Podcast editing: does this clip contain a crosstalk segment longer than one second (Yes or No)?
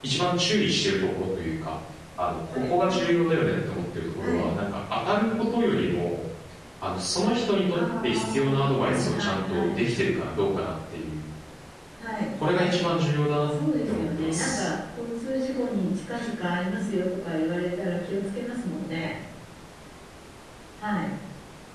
Yes